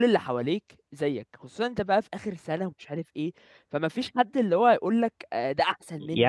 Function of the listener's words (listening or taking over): taking over